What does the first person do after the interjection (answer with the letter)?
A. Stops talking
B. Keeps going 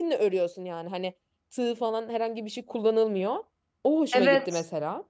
A